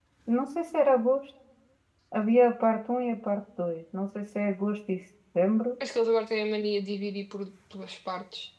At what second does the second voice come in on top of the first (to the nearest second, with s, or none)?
none